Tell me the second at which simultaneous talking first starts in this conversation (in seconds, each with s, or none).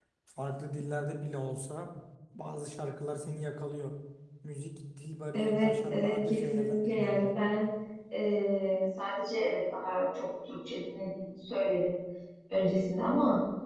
5.3 s